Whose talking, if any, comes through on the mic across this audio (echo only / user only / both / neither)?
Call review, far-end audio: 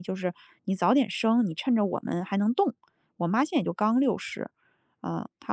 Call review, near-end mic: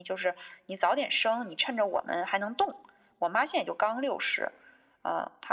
echo only